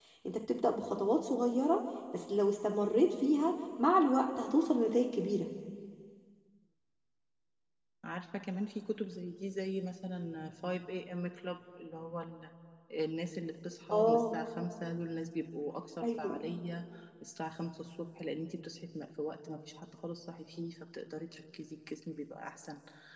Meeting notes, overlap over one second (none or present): none